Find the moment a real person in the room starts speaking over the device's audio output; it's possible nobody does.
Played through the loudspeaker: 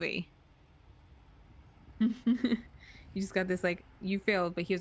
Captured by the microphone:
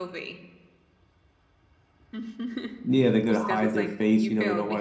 2.8 s

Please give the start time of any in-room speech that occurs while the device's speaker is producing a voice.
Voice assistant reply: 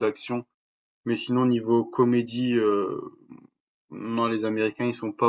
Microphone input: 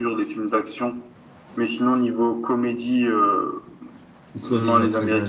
4.3 s

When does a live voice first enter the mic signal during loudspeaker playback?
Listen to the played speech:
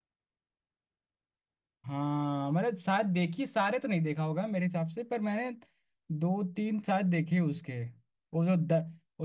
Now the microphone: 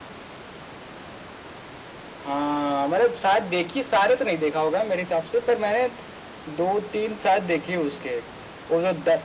none

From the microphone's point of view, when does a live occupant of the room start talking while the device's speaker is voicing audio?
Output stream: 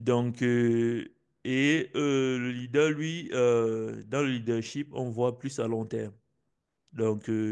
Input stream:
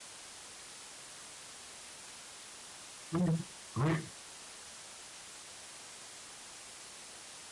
3.1 s

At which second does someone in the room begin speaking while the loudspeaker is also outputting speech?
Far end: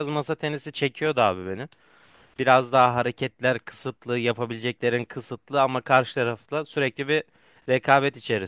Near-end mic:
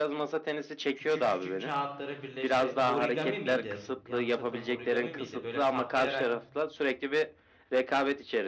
0.9 s

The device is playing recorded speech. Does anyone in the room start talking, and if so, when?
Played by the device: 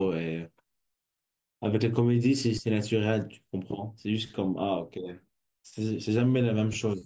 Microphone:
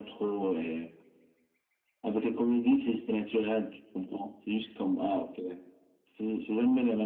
none

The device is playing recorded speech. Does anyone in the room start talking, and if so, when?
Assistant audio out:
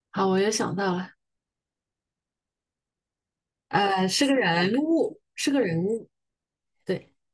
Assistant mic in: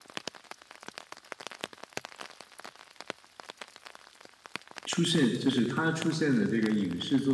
4.8 s

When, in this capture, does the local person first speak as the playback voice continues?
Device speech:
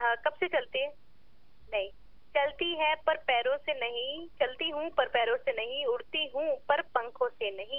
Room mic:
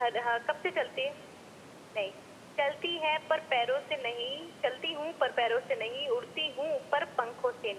none

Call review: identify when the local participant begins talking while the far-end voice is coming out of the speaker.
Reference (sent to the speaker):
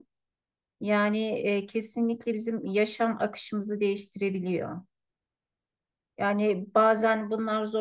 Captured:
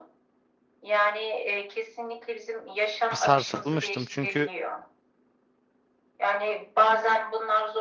3.1 s

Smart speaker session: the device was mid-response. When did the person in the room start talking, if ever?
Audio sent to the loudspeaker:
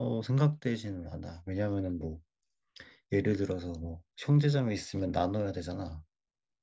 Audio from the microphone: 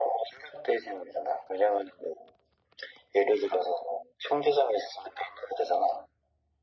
none

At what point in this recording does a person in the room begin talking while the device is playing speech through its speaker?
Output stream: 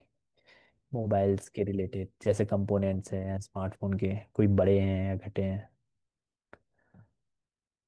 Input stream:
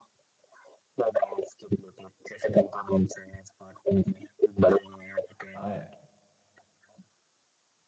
5.5 s

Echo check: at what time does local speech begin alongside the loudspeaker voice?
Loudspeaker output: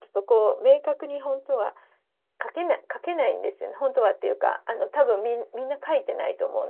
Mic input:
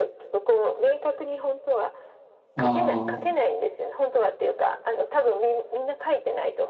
2.6 s

